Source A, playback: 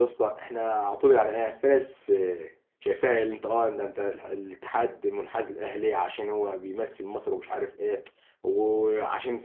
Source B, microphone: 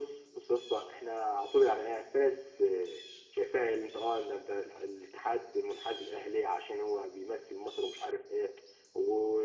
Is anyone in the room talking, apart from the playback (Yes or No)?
No